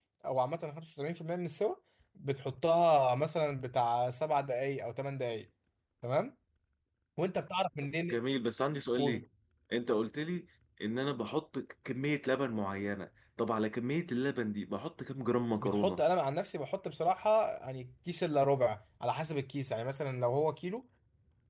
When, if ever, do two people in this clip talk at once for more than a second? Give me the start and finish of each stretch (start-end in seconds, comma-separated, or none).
none